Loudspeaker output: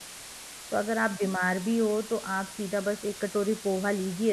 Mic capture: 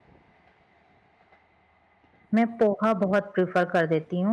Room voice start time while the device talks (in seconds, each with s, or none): 2.3 s